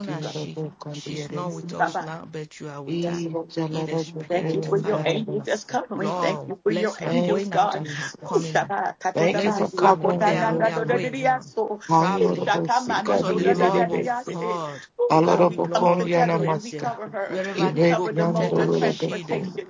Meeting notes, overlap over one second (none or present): present